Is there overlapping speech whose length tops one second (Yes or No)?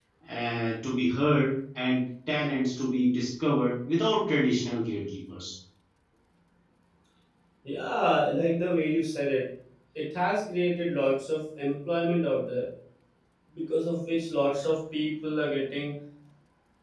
No